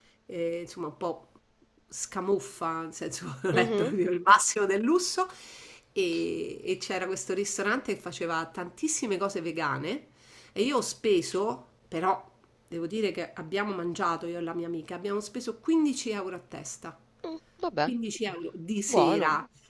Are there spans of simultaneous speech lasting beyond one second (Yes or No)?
No